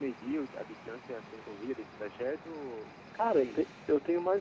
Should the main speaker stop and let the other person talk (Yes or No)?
Yes